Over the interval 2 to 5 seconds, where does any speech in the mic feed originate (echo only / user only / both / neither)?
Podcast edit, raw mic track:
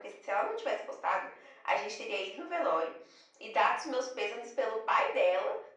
echo only